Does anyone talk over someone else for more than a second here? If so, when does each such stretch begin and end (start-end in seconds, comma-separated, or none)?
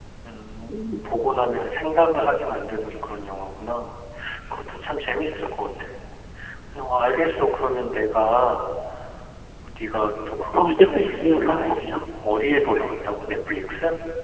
10.6-12.0